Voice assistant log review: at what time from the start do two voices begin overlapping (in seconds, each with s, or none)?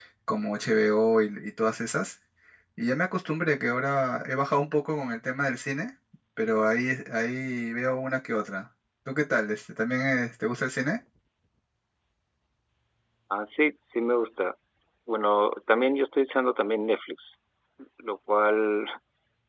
none